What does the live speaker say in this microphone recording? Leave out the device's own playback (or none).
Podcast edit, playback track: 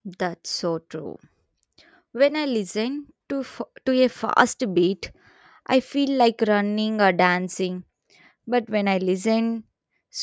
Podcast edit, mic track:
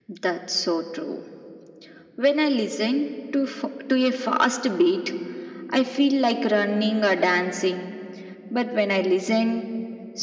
none